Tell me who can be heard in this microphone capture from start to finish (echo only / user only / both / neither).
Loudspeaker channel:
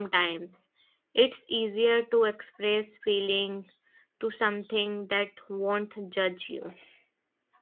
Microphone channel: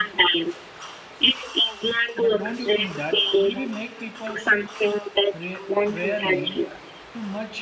both